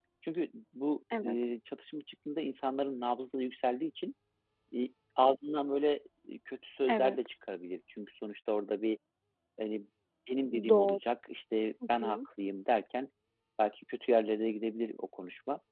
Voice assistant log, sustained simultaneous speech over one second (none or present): none